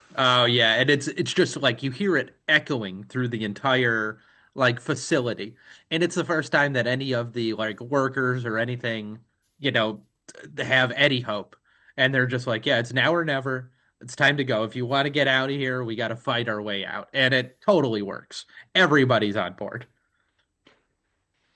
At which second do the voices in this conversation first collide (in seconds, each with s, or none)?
none